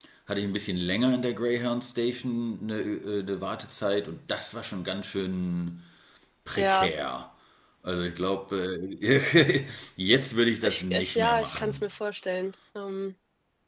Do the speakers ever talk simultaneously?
Yes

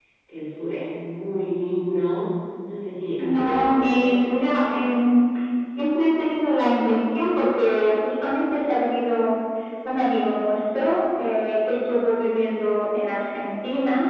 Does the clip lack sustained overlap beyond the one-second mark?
No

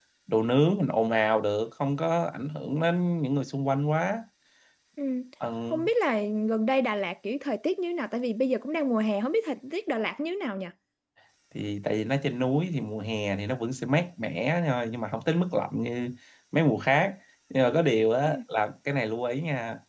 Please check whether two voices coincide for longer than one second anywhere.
No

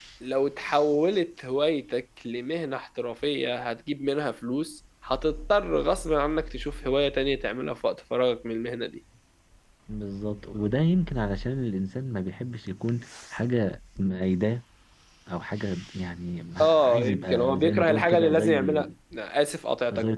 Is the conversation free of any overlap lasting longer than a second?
No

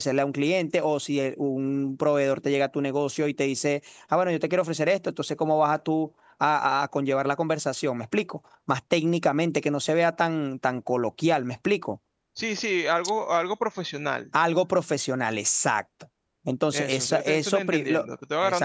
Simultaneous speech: Yes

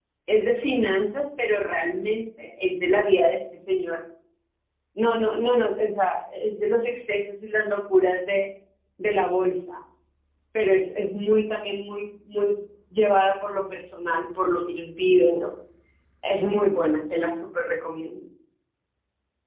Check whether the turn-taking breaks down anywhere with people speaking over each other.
No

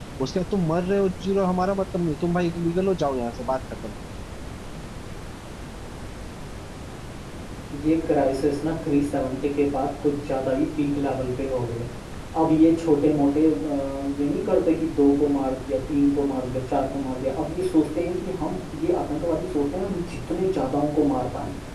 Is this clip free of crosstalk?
Yes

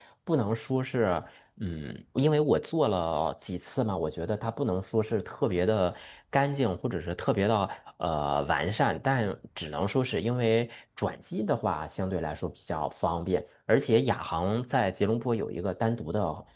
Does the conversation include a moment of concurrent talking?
No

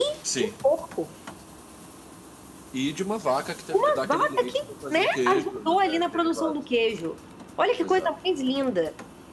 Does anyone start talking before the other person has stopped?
Yes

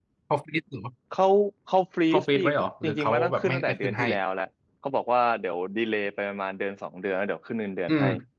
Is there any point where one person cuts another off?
Yes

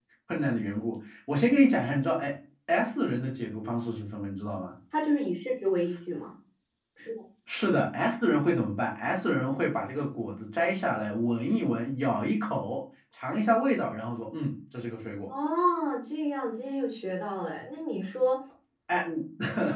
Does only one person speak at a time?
Yes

